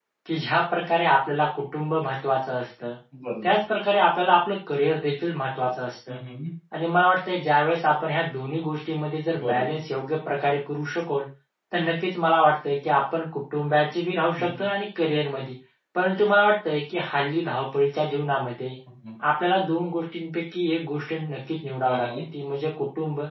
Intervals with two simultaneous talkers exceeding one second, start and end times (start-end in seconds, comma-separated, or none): none